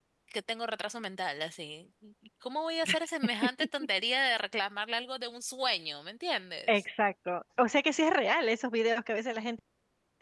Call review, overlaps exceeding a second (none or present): none